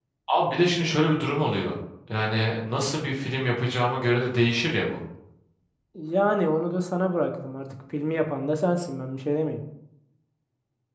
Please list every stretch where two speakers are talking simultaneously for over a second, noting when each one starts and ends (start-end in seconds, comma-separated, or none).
none